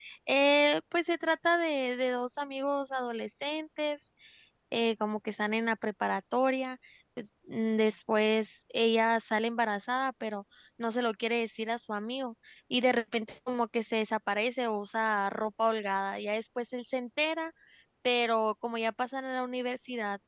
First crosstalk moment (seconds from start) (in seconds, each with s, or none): none